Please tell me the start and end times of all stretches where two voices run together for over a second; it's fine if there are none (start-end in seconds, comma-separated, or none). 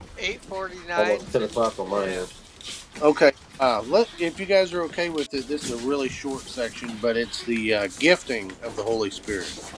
1.0-2.2